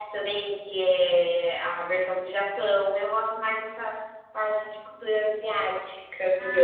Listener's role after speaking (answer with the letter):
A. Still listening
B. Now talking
B